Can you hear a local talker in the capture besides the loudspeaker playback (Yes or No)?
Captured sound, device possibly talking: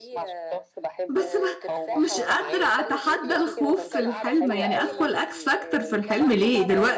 Yes